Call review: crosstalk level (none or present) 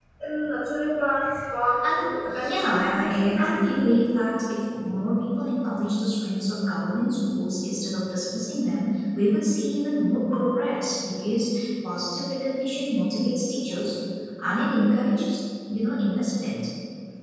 present